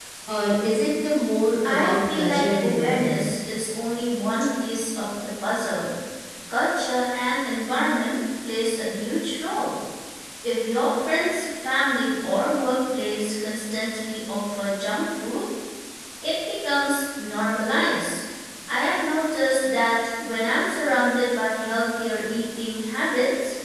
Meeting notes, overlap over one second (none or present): present